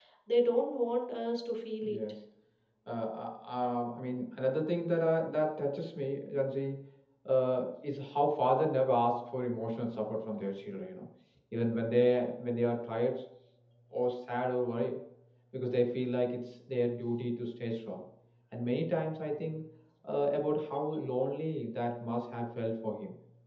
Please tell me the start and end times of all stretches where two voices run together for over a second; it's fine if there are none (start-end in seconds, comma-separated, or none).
none